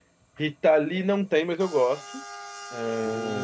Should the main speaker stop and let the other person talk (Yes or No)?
Yes